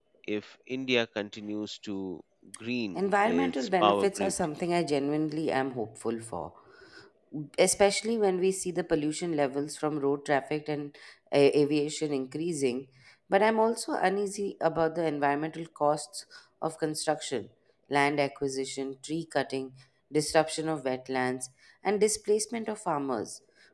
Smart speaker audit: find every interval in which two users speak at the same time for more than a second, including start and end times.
3.0-4.3

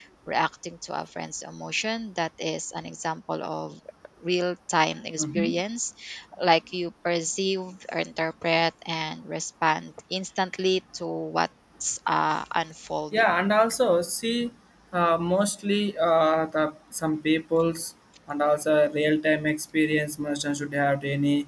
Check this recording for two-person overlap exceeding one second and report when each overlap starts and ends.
none

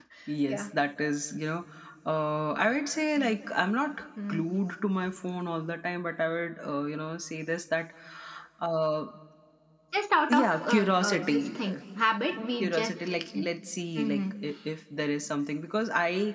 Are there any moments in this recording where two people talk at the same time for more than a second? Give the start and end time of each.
10.3-11.6

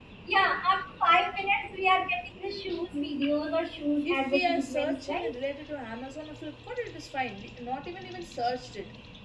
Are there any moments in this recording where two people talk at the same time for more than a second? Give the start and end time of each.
4.0-5.4

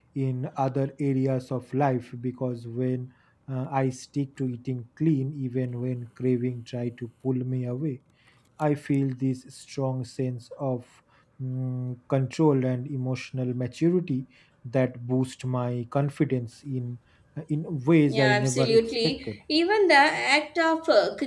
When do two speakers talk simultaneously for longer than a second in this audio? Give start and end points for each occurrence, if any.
18.1-19.3

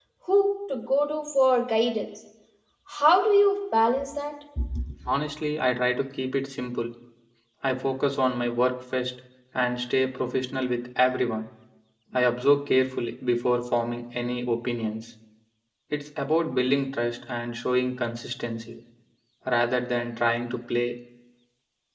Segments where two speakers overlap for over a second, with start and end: none

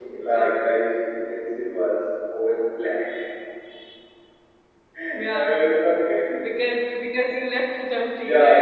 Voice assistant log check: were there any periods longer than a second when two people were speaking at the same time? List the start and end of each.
none

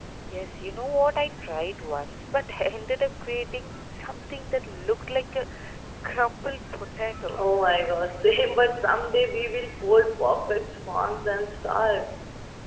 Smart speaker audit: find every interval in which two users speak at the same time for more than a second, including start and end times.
none

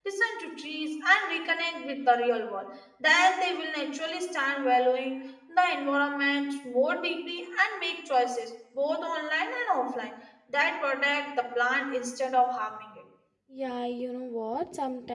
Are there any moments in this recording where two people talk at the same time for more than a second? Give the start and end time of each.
none

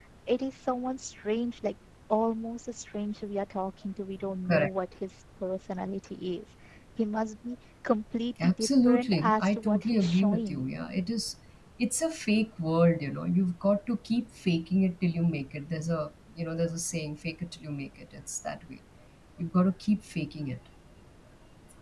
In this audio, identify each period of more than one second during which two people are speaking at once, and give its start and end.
8.4-10.6

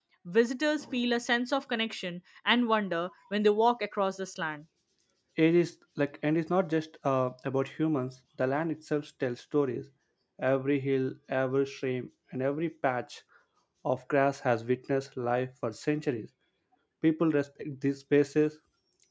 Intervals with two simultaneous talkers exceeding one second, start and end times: none

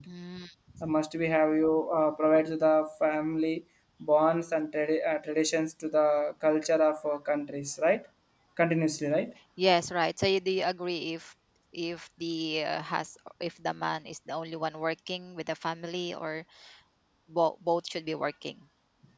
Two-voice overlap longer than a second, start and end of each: none

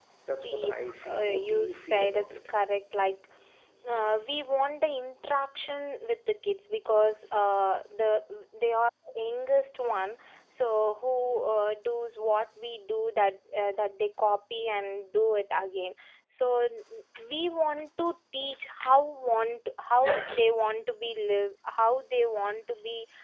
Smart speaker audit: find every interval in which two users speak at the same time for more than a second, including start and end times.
1.1-2.4

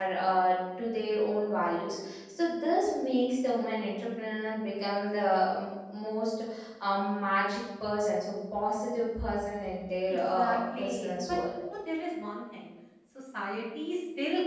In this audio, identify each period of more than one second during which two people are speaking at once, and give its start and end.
10.1-11.4

